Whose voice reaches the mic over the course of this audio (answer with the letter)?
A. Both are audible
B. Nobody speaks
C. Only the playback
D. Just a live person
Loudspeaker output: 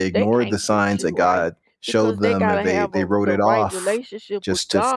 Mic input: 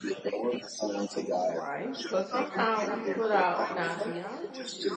A